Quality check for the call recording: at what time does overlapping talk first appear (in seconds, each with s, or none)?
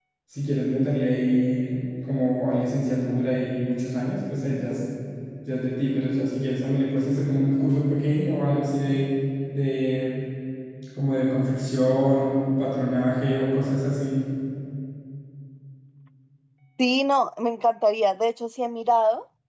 none